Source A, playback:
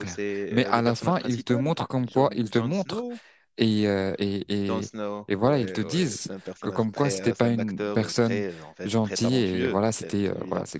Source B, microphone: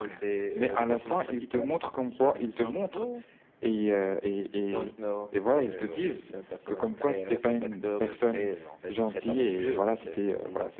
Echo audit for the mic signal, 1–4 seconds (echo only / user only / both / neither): echo only